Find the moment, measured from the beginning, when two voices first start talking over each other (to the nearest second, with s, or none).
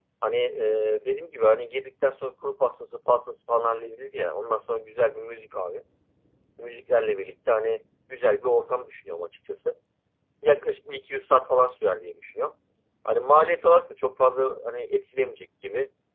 none